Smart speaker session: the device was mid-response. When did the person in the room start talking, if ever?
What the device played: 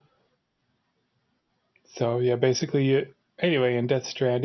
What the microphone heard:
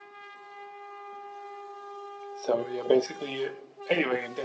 none

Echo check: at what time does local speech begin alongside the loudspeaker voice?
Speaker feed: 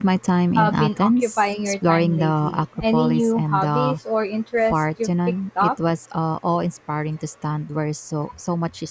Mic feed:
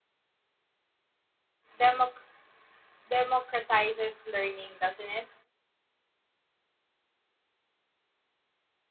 1.8 s

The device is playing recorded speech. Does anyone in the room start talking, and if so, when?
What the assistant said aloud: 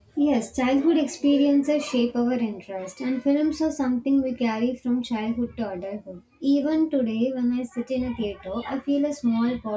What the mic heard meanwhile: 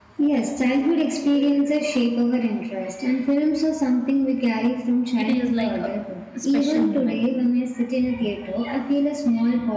5.2 s

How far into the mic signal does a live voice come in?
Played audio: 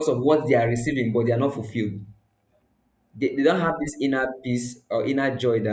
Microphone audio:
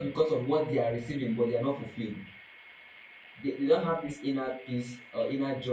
none

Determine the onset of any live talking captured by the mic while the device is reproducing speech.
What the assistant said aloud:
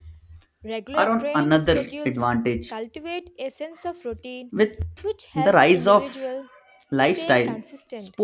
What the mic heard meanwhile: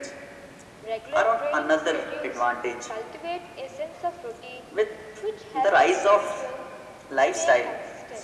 none

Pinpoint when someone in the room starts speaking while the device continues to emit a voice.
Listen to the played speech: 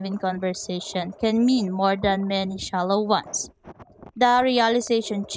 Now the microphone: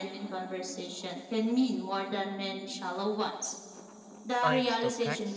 4.4 s

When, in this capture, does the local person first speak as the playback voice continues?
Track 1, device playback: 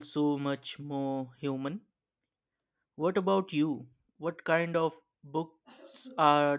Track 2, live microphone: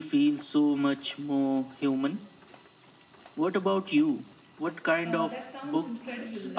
5.0 s

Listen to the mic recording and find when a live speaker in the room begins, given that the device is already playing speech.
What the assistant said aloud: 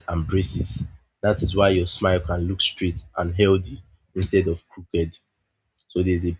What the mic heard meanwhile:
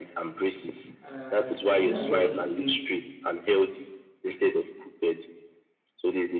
1.0 s

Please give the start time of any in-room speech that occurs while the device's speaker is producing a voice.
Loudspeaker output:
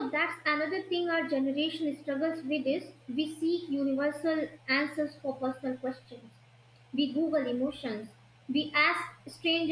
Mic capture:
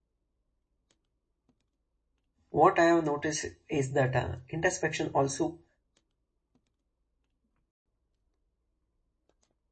2.5 s

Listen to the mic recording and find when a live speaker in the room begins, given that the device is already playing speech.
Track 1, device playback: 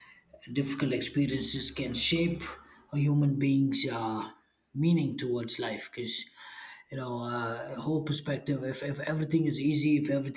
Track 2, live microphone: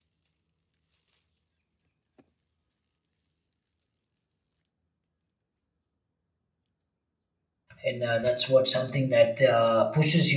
7.8 s

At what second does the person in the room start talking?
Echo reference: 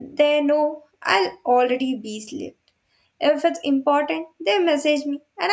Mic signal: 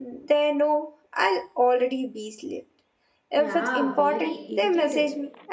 3.3 s

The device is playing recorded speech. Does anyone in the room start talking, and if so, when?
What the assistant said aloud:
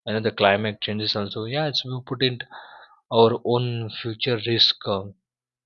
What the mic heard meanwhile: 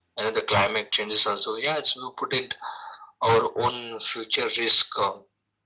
none

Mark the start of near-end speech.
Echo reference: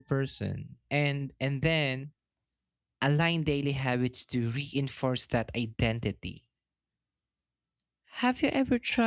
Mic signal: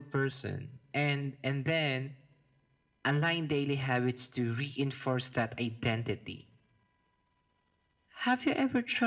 none

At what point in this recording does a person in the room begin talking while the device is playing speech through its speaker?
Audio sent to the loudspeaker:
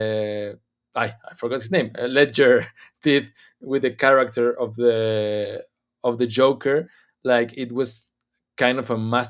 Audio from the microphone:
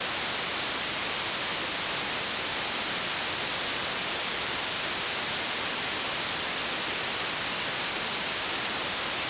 none

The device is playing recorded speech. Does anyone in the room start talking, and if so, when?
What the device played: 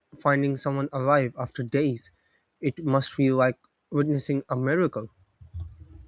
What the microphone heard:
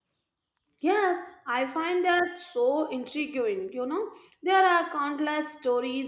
0.8 s

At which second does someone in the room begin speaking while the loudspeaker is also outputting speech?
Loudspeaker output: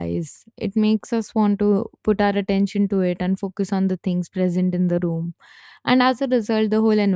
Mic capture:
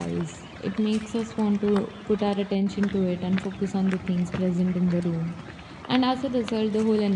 none

